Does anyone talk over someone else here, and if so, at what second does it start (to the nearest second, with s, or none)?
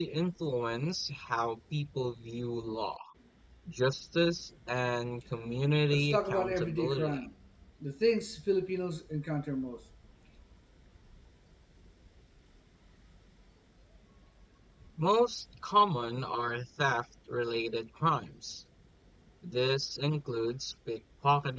6 s